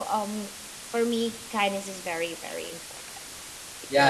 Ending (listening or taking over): taking over